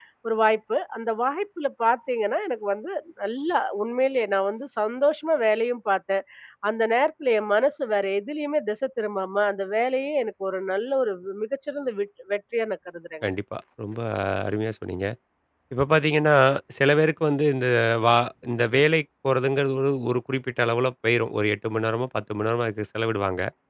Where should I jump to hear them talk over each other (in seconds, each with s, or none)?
none